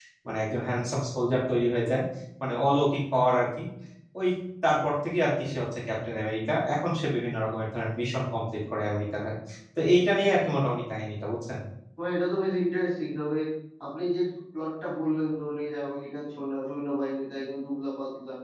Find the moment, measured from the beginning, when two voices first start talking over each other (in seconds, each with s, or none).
none